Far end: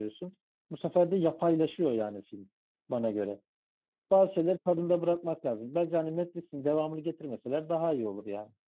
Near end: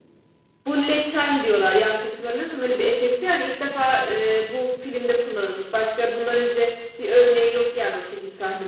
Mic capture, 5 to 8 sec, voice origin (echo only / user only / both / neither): user only